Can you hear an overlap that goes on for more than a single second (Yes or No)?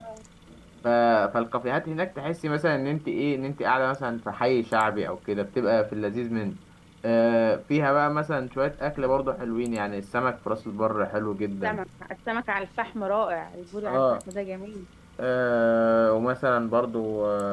No